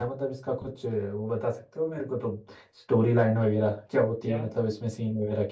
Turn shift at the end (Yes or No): No